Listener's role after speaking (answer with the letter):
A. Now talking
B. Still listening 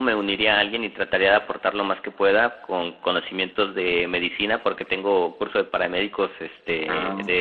B